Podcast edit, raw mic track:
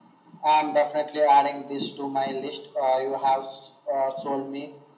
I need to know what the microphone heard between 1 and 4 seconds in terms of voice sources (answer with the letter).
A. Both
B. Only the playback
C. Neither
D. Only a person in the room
B